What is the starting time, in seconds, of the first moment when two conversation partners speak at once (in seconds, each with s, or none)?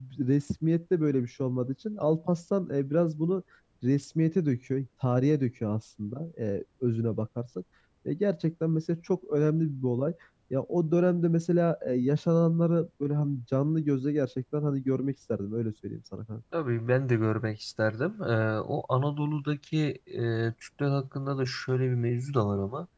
none